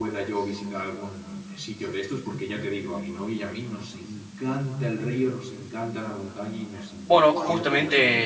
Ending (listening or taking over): taking over